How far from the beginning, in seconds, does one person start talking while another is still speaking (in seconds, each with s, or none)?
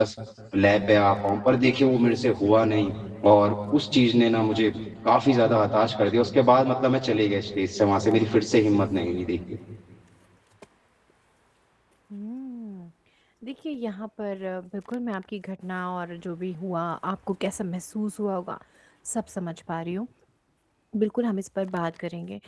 none